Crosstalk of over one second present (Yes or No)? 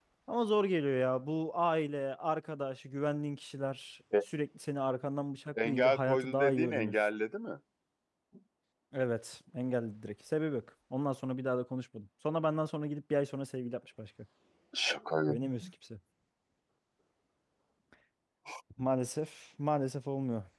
Yes